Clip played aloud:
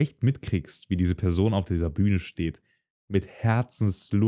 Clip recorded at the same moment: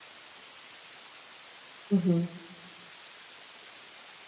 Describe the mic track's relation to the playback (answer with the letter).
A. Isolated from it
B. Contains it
A